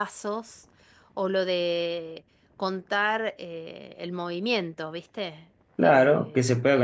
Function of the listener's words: taking over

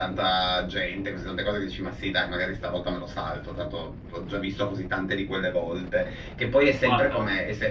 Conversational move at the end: listening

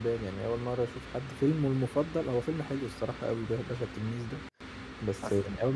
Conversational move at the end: listening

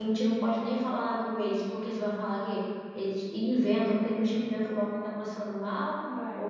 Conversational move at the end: listening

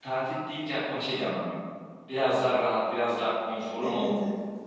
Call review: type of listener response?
listening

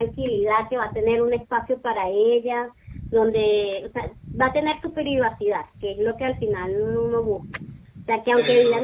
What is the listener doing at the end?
listening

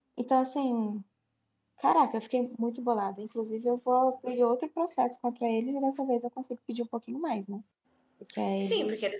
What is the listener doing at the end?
taking over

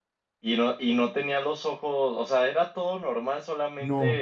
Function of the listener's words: taking over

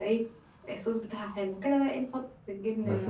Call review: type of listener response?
taking over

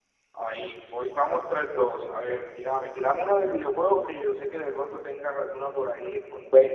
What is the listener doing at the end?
taking over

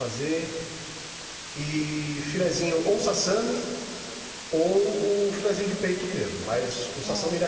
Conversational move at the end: listening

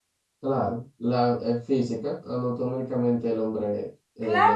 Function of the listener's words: taking over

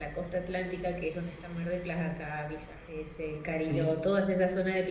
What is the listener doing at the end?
listening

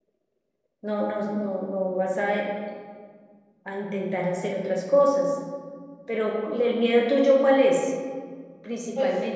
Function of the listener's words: taking over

